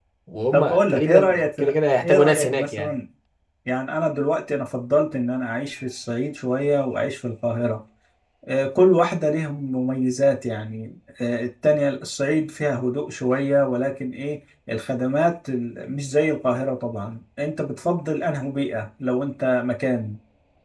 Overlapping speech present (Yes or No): Yes